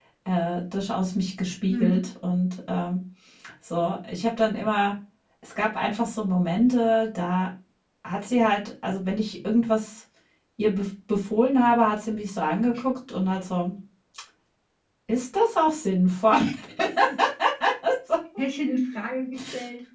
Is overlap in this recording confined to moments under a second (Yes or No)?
Yes